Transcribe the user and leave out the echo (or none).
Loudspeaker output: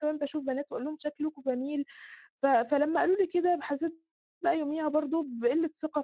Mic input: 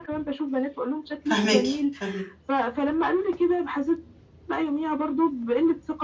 فاهماكِ، فاهم